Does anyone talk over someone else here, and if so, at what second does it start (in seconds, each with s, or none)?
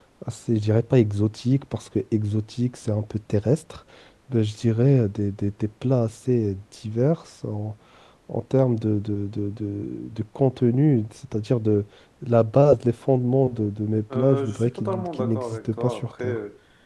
14.1 s